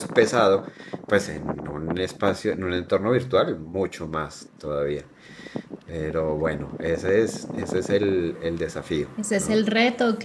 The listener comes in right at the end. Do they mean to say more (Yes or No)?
Yes